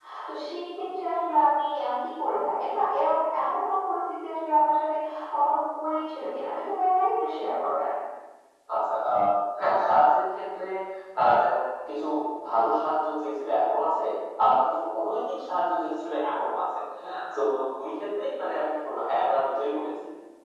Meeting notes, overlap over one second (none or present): none